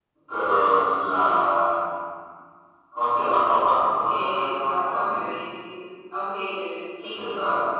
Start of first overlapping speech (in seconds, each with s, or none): 4.0 s